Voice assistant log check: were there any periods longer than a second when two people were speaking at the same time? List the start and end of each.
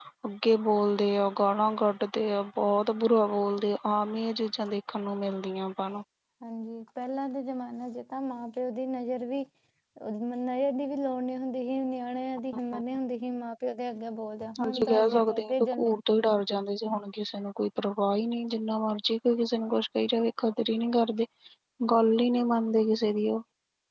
14.6-15.9

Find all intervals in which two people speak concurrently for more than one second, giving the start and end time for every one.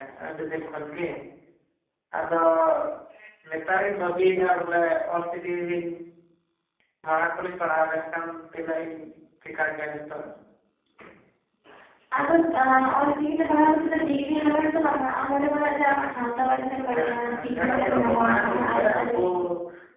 16.9-19.2

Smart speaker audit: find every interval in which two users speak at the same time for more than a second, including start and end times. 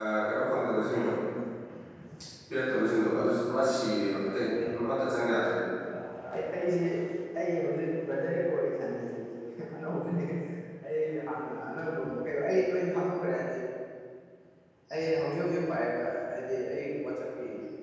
none

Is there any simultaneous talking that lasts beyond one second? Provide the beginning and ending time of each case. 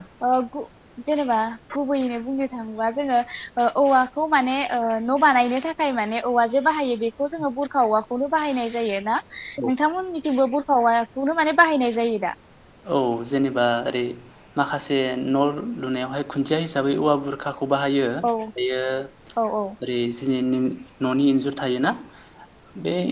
none

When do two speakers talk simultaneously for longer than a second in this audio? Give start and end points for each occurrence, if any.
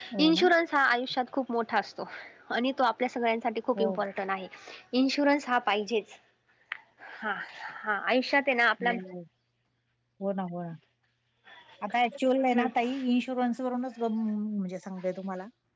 none

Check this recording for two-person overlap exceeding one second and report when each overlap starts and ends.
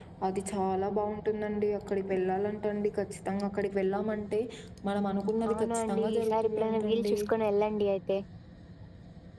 5.5-7.1

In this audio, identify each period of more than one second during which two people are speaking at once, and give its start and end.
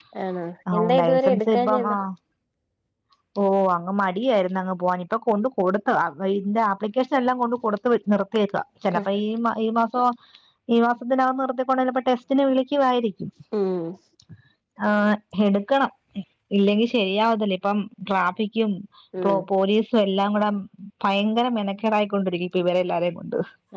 0.7-2.0

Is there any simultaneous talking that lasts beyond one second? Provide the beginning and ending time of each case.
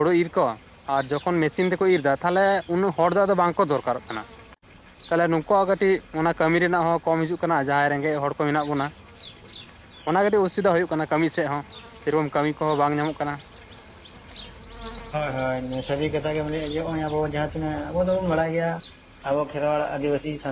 none

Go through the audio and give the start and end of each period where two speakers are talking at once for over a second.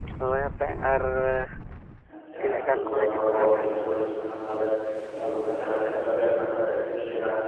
2.4-3.6

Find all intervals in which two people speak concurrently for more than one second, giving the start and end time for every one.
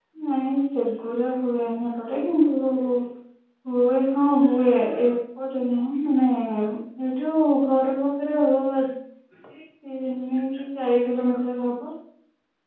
none

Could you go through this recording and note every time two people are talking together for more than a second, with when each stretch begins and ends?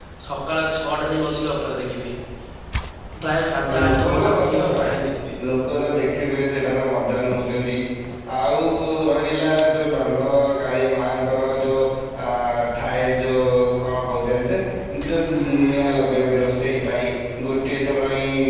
3.7-4.9

